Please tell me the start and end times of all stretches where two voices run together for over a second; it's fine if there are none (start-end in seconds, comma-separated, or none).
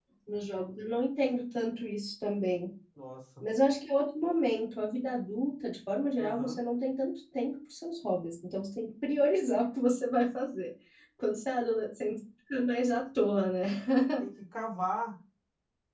none